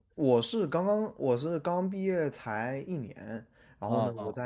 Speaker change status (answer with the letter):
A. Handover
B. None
B